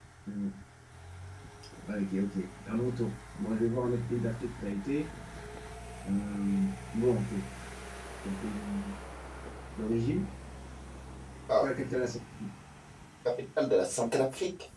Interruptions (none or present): none